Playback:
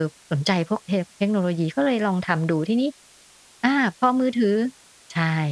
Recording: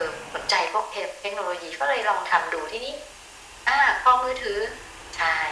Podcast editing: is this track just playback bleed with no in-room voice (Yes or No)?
Yes